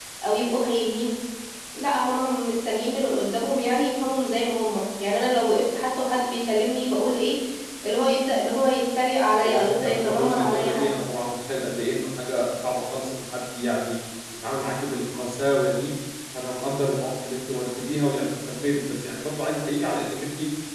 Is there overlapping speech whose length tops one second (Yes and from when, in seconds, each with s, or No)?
Yes, from 9.4 s